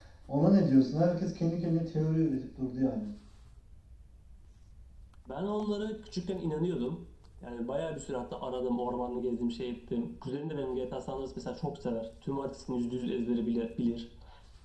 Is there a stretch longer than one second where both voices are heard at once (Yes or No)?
No